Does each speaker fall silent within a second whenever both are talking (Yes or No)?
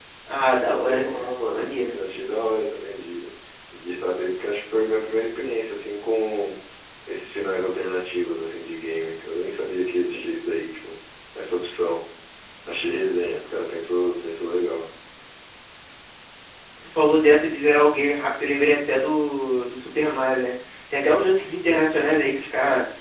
No